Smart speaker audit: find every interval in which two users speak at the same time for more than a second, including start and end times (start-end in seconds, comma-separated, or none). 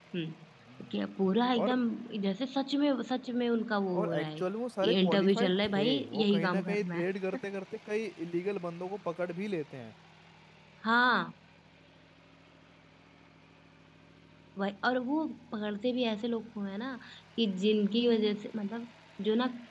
5.0-7.0